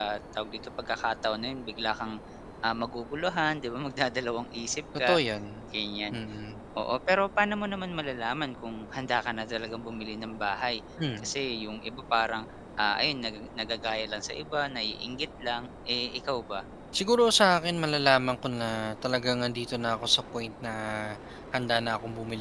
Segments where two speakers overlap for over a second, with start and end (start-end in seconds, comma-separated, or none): none